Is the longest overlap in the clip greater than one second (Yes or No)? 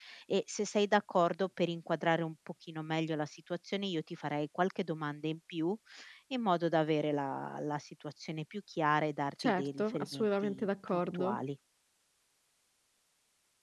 Yes